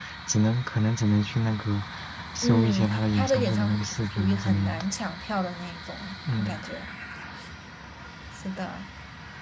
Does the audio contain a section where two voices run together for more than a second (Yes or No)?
Yes